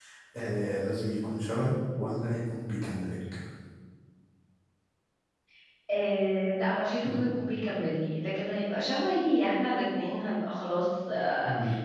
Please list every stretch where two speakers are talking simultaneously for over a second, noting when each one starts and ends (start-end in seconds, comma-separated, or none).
none